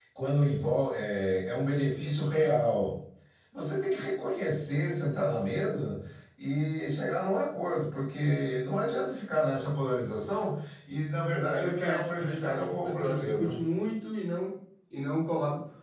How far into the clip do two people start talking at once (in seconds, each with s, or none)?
11.5 s